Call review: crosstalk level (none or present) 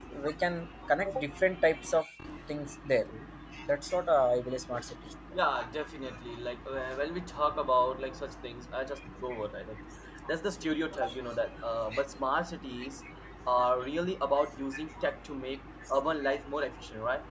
none